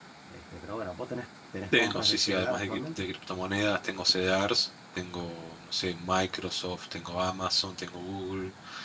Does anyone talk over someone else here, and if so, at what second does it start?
1.7 s

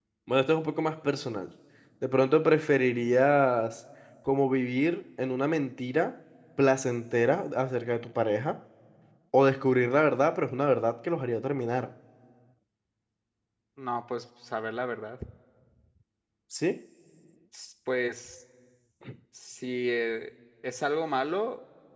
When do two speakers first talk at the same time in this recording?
none

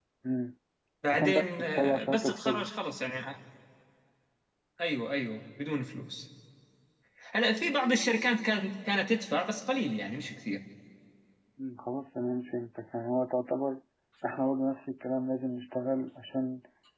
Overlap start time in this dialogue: 1.1 s

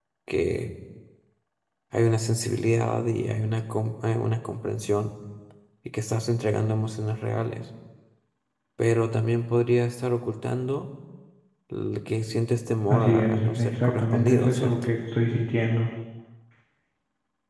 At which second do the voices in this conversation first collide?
12.9 s

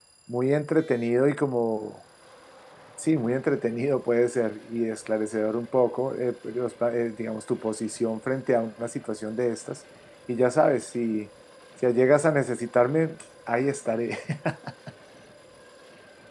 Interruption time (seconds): none

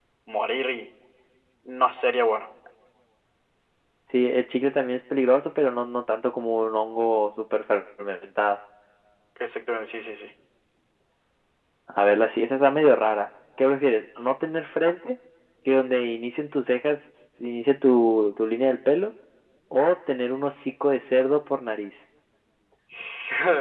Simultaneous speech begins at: none

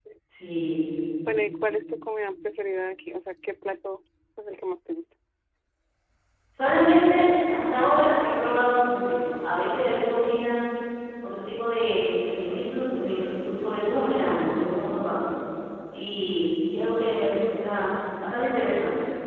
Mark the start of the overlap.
none

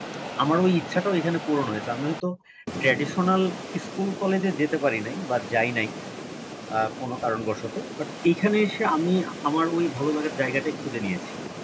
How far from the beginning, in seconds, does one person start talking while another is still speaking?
none

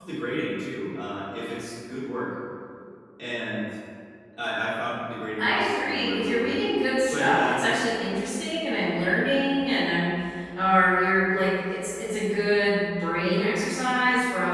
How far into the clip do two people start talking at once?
5.4 s

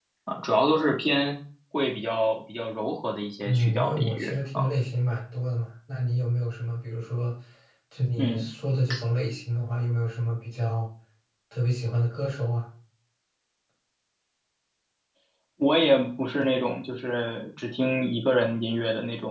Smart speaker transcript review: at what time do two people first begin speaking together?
3.4 s

